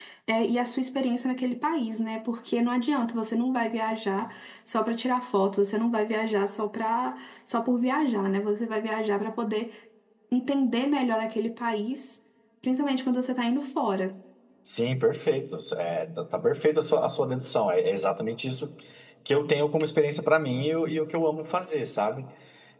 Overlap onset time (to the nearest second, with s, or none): none